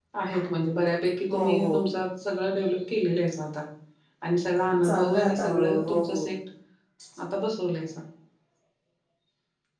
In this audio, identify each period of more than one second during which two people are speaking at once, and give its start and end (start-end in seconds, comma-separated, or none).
4.8-6.3